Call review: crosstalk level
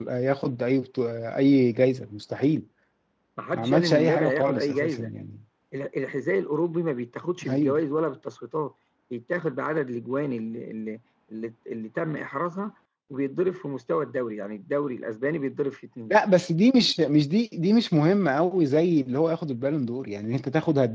present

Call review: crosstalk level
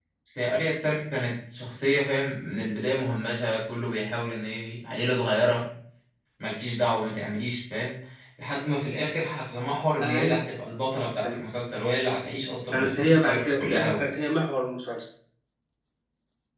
present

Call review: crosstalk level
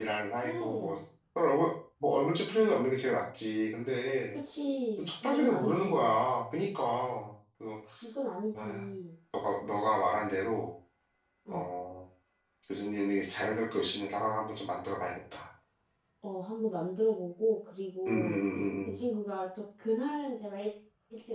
present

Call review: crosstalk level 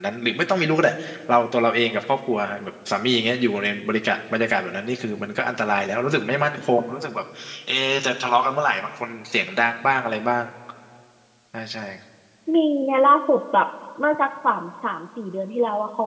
none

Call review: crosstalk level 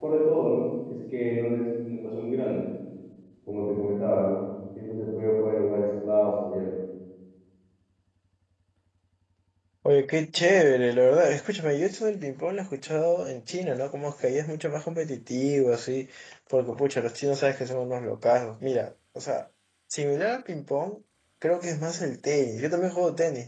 none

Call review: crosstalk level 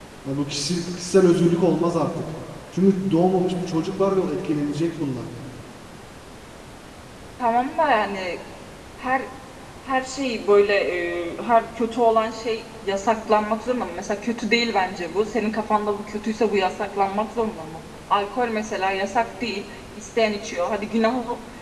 none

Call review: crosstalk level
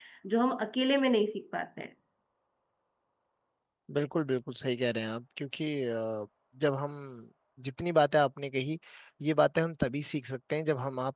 none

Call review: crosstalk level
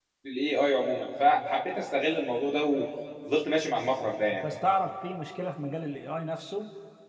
none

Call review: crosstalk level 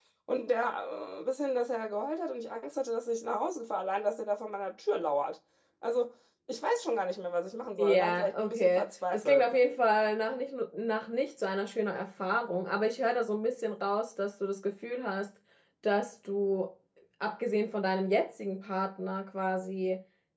present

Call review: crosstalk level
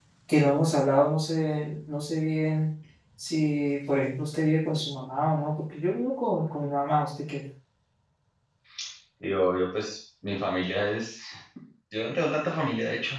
none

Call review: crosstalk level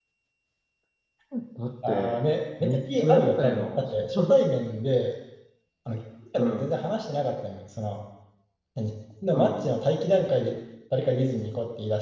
present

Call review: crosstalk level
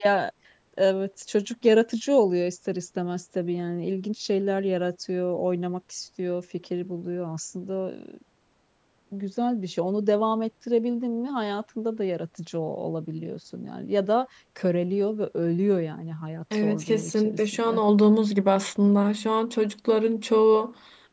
present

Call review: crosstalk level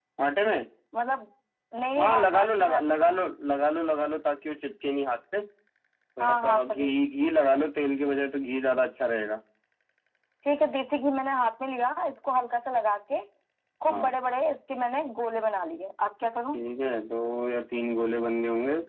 present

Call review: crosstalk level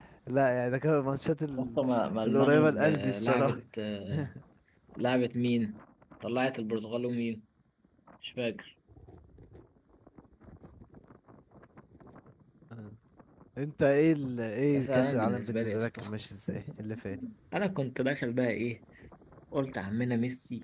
present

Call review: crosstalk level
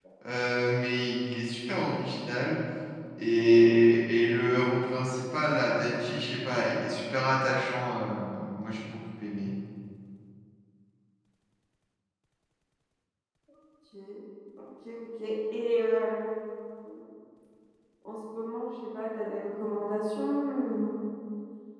none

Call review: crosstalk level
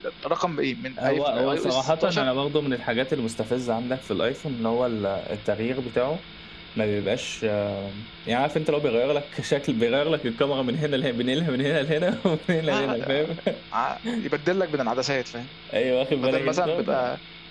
present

